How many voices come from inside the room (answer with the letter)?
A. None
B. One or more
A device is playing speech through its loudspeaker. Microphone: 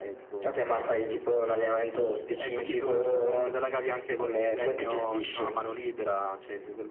A